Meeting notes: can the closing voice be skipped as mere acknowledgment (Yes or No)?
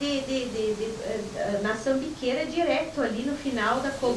No